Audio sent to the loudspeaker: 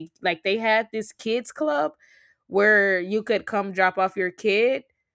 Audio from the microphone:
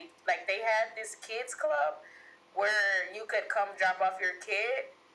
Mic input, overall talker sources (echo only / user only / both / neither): echo only